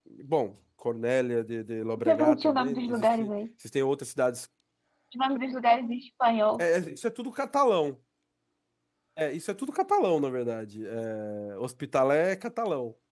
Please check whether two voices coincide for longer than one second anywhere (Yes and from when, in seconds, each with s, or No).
Yes, from 2.0 s